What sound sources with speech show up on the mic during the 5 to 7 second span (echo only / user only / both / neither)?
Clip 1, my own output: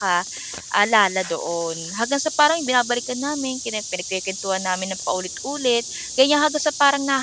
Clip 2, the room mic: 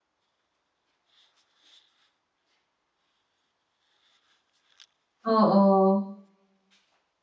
user only